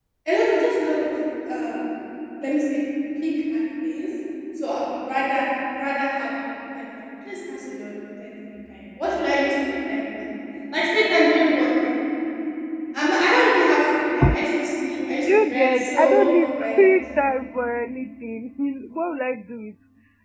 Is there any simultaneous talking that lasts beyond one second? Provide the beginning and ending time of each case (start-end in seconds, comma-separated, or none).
15.2-16.8